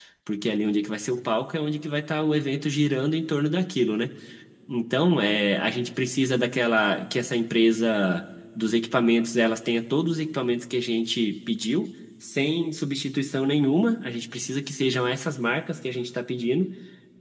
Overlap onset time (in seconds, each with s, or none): none